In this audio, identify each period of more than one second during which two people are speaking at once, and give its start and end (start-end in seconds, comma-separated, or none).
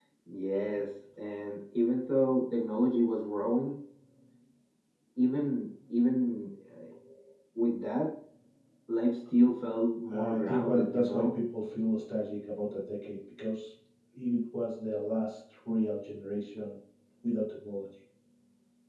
10.1-11.3